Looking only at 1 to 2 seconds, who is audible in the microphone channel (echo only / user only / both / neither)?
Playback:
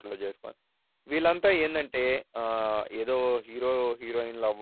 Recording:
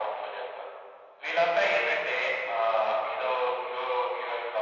echo only